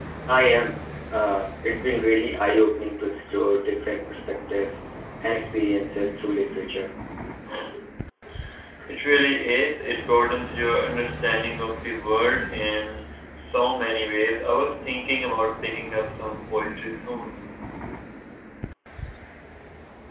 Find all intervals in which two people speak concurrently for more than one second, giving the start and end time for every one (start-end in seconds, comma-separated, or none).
none